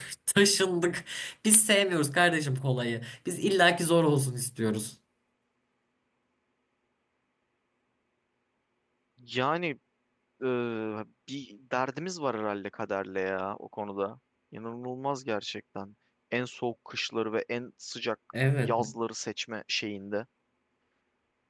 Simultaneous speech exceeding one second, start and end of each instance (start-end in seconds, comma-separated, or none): none